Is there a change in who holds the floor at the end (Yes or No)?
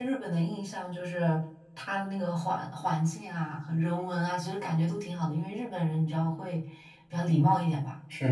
Yes